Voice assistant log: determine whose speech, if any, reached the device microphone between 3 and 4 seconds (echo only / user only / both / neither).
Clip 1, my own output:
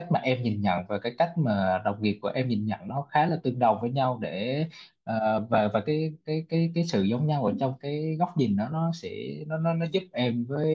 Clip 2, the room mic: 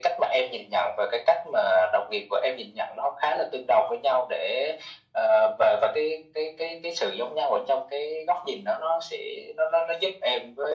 echo only